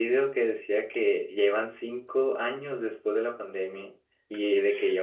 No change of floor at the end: Yes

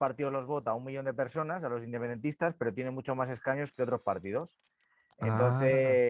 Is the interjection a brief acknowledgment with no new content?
Yes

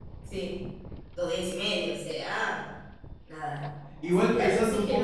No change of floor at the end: No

